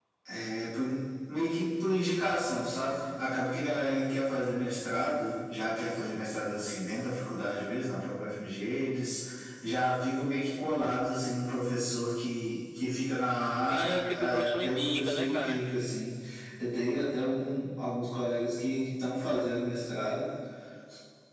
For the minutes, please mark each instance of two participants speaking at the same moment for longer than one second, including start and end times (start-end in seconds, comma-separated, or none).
13.7-15.6